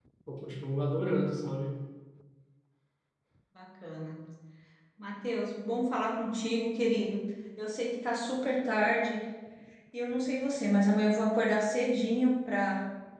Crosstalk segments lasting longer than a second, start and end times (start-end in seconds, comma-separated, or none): none